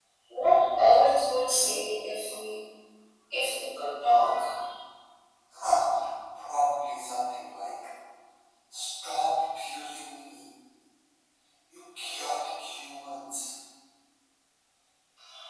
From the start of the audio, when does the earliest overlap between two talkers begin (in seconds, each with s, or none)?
none